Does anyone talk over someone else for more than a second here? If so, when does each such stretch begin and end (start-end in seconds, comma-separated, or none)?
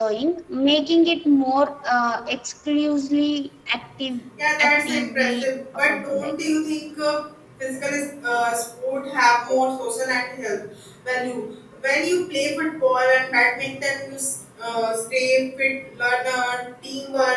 4.6-6.3